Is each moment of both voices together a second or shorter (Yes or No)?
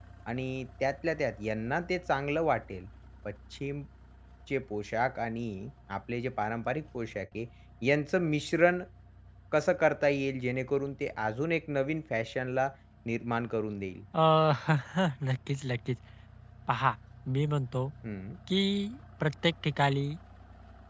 Yes